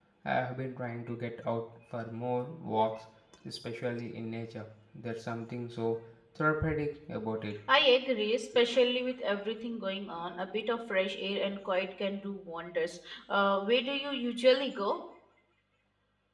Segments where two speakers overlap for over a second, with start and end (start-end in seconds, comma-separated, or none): none